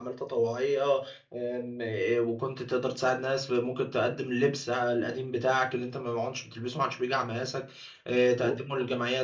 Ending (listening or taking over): listening